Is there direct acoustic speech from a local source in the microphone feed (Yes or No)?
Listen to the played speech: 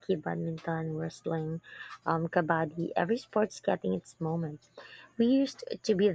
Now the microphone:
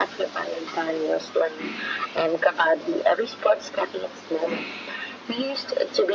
No